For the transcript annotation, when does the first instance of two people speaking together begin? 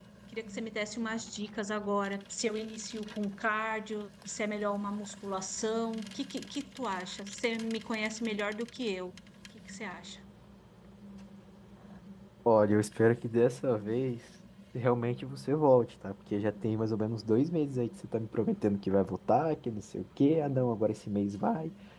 none

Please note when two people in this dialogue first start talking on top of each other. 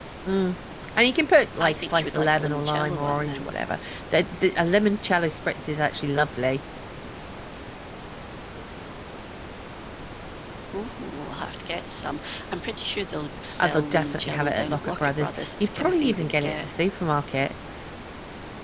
1.6 s

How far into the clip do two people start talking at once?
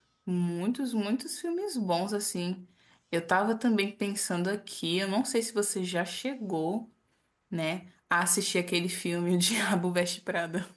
none

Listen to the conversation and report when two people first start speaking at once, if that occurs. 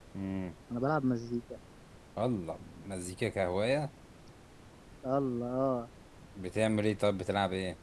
none

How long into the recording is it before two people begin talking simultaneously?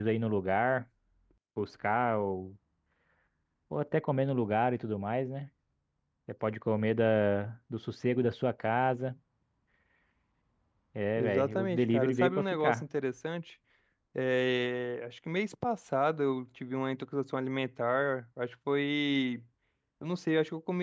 11.2 s

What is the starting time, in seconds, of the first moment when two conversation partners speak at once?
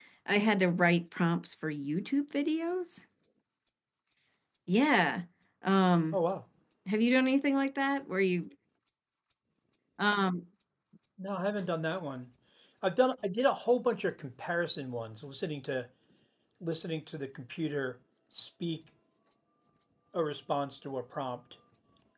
none

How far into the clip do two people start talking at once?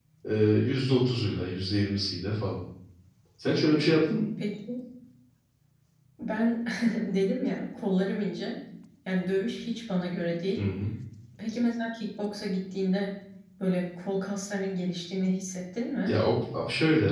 none

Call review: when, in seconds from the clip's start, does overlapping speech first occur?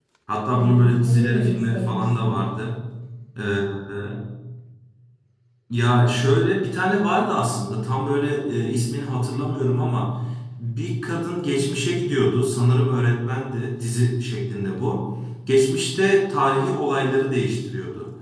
0.5 s

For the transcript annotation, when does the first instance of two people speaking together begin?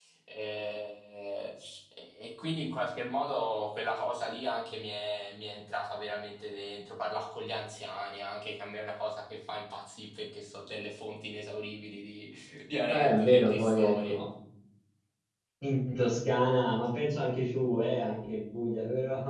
12.9 s

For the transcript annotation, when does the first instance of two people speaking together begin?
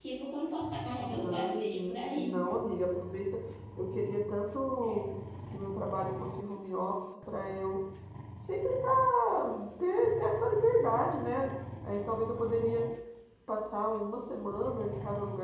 1.0 s

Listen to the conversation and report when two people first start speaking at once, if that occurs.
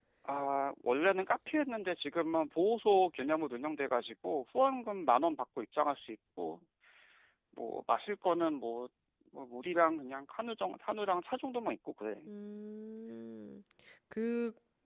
none

